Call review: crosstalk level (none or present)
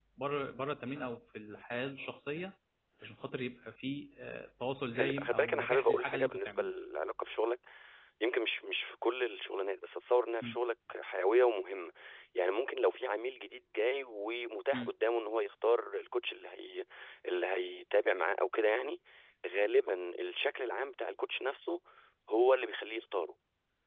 present